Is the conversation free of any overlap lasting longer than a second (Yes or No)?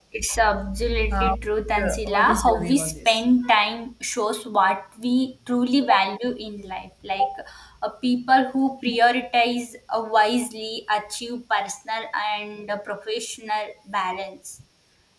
No